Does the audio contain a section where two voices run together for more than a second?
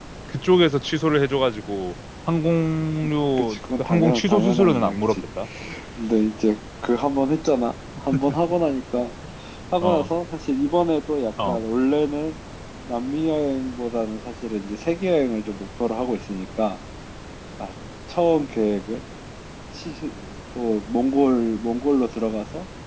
Yes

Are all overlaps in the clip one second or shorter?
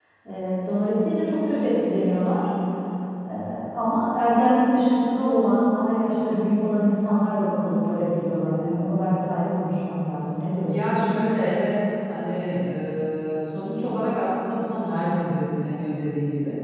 Yes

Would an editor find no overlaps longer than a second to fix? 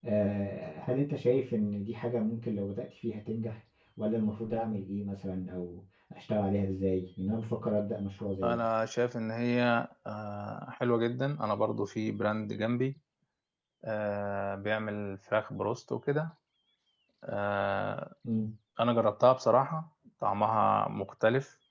Yes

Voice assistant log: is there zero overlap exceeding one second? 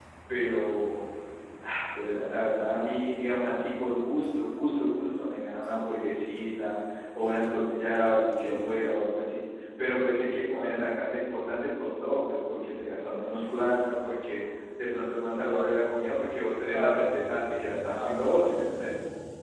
Yes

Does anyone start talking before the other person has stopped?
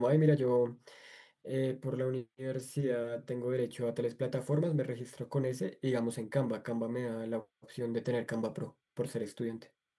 No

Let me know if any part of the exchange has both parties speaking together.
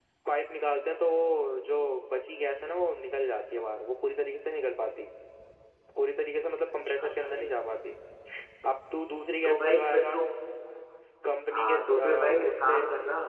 Yes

